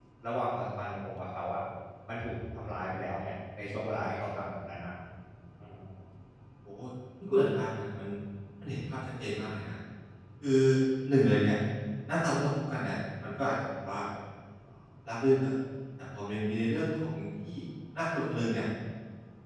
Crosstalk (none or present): none